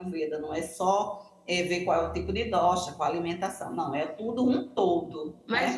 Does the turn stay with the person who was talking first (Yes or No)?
No